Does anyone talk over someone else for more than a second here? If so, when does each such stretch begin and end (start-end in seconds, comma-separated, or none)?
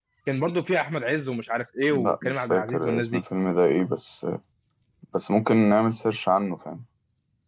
1.9-3.2